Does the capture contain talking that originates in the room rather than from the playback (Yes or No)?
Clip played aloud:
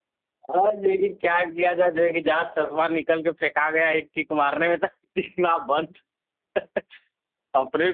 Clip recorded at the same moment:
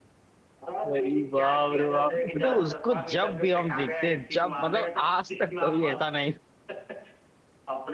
Yes